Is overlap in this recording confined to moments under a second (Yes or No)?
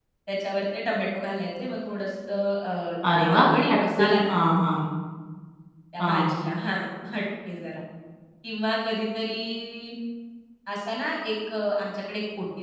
No